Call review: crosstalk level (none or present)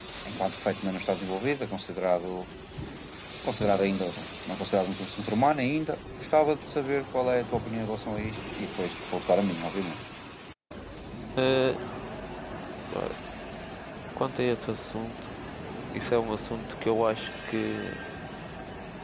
none